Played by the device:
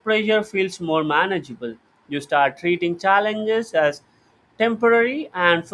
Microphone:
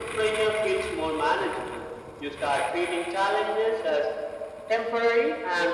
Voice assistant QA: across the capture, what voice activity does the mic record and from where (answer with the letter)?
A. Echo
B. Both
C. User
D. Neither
A